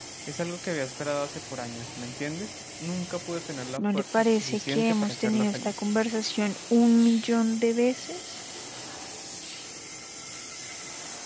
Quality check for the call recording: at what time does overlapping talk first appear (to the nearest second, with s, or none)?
4 s